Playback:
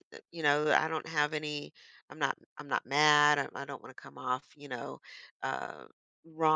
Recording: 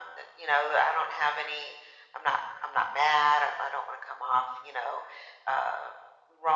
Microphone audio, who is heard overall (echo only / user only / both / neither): echo only